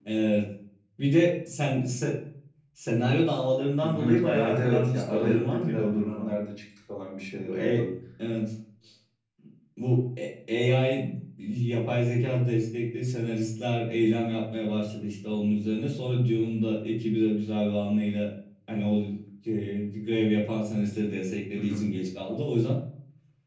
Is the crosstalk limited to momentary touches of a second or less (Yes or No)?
No